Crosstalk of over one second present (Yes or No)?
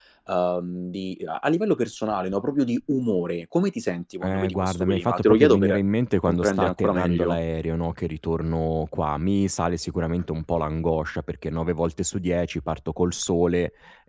Yes